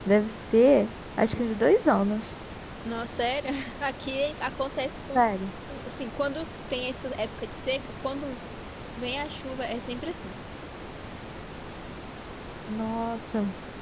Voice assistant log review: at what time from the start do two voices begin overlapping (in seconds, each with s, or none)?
none